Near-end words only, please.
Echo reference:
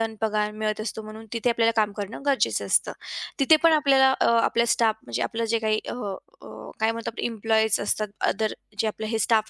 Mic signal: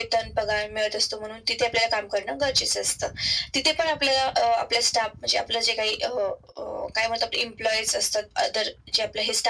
none

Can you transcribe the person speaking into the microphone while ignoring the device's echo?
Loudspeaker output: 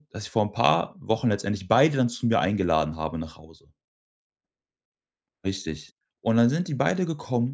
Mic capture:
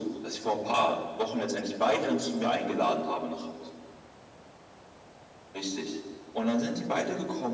none

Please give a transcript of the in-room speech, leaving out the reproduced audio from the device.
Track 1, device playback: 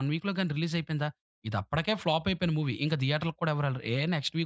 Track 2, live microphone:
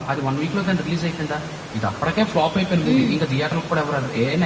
హ్మ్.

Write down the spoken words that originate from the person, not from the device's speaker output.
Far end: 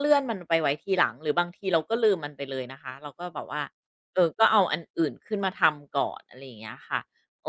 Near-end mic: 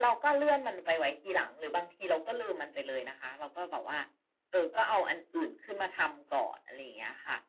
none

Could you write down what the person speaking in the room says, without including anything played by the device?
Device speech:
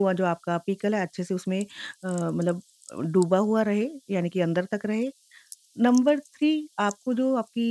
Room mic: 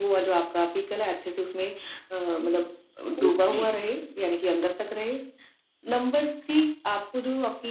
ओके,

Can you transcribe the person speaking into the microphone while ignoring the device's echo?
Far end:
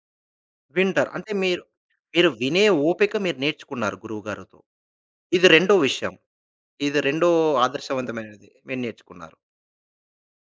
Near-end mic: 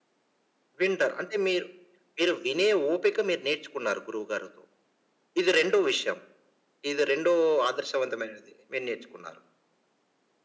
none

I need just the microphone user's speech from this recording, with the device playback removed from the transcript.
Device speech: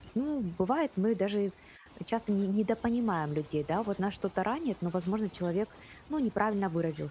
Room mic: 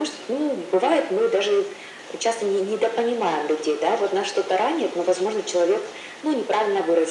none

